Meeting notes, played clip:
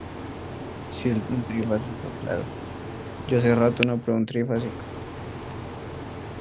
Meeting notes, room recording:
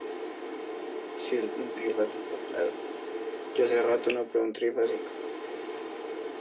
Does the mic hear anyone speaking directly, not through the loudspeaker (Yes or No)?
No